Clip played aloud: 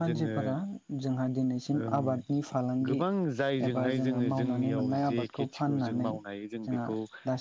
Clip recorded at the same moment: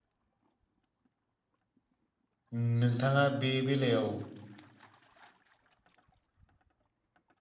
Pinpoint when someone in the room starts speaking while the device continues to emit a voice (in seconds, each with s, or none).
2.5 s